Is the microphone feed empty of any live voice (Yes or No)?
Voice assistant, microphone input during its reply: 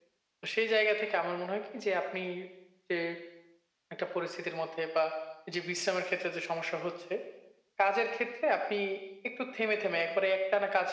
Yes